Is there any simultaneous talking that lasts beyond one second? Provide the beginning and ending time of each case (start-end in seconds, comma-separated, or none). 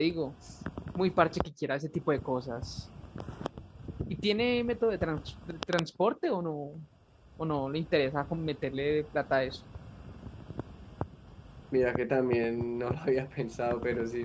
none